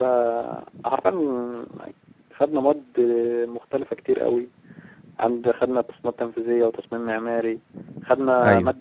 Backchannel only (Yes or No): Yes